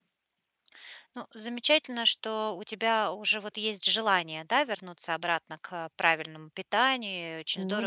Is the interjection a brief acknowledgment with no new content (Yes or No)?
Yes